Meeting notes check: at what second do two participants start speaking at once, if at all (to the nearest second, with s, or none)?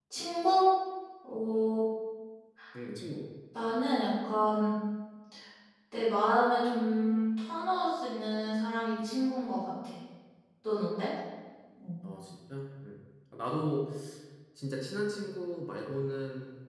none